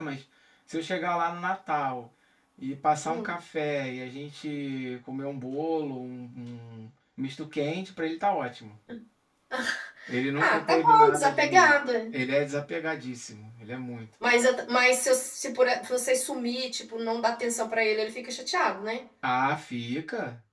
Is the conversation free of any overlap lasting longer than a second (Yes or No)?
No